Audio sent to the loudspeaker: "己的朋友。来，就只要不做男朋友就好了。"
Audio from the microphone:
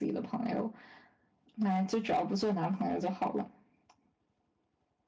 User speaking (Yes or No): No